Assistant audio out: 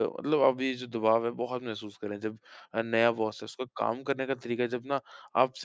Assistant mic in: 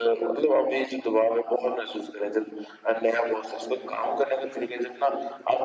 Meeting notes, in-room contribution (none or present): none